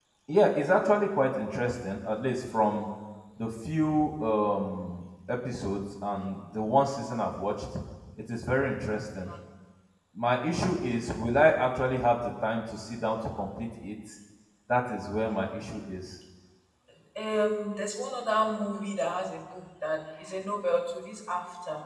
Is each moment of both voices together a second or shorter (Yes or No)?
Yes